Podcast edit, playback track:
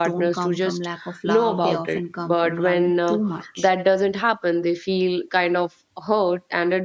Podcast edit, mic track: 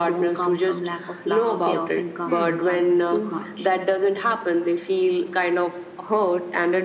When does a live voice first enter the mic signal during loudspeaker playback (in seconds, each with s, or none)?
2.2 s